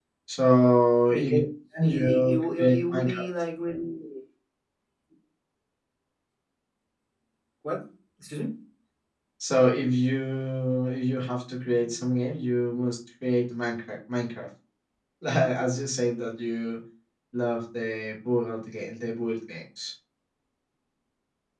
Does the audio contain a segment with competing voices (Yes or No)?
Yes